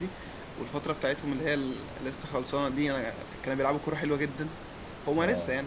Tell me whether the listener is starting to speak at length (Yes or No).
No